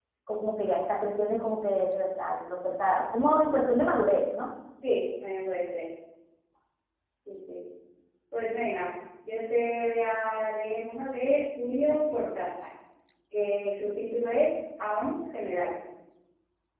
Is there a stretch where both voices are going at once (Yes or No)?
No